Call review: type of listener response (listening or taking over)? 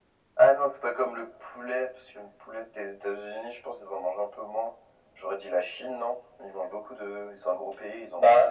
taking over